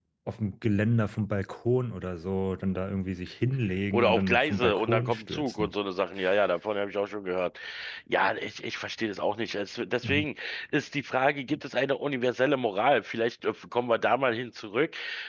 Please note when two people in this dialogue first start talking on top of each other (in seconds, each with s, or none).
3.9 s